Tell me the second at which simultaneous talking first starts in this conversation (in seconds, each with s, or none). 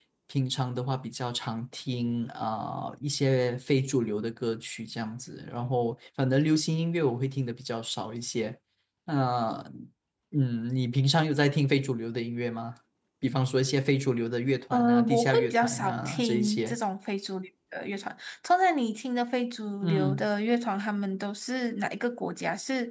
14.7 s